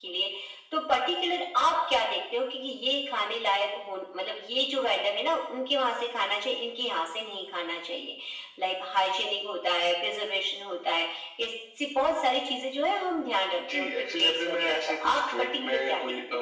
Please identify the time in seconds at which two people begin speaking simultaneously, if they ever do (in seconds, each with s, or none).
13.5 s